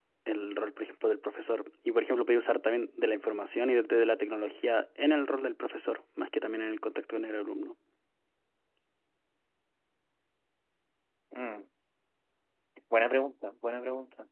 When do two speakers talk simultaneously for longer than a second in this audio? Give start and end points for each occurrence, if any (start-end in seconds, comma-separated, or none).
none